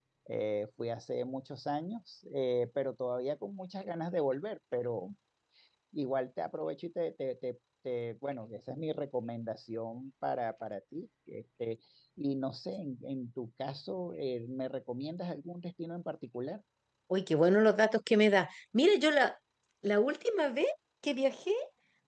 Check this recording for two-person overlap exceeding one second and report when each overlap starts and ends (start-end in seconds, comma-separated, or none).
none